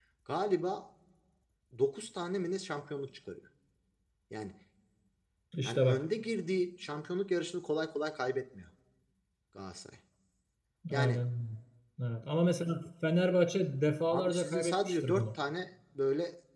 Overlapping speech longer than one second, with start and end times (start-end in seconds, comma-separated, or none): 14.1-15.3